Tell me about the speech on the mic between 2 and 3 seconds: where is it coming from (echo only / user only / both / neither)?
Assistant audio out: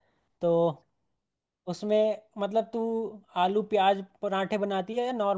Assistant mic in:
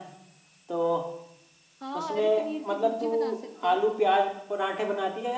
both